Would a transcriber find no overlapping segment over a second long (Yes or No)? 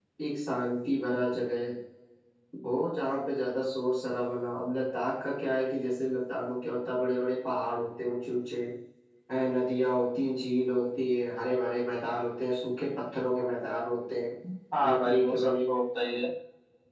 No